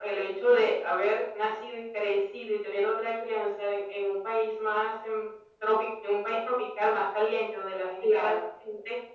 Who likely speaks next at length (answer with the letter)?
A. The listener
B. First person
B